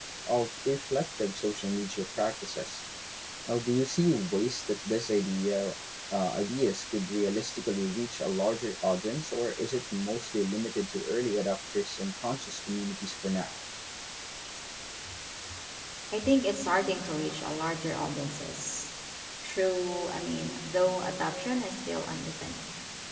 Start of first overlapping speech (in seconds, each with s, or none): none